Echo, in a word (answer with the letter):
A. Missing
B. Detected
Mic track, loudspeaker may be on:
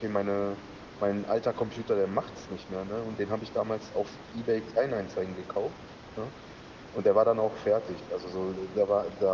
A